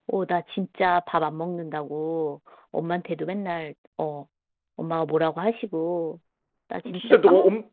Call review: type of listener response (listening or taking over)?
taking over